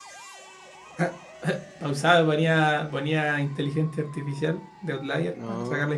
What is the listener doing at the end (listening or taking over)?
taking over